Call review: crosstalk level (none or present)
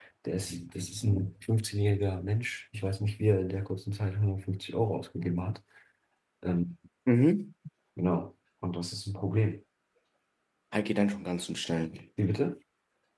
none